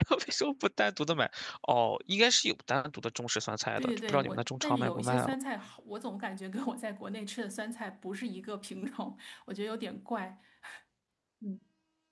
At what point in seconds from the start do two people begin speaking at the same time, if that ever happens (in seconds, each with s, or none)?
3.8 s